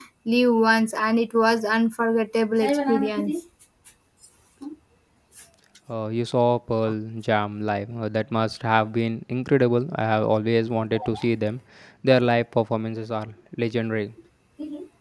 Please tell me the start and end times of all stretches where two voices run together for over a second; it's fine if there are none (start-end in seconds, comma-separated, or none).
none